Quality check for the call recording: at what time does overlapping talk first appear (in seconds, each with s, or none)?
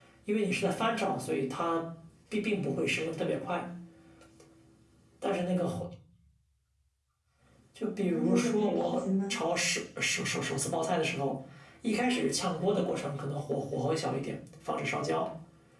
8.0 s